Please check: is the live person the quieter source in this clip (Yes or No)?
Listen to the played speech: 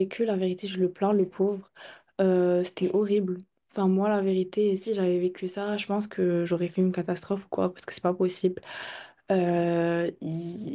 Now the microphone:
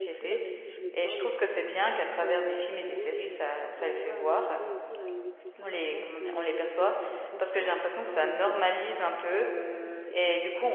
No